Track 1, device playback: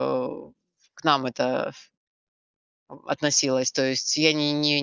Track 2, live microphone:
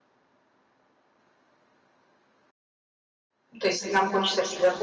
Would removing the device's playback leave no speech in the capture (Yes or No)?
No